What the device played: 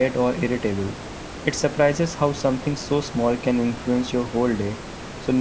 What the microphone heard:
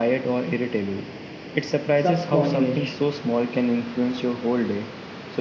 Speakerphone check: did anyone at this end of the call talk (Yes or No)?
Yes